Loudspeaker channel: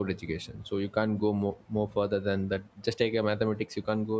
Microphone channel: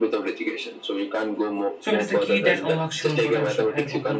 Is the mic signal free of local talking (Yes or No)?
No